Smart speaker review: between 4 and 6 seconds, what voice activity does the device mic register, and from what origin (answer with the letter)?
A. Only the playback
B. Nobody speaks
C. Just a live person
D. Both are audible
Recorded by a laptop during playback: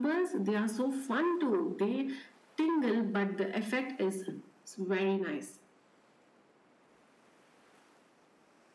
A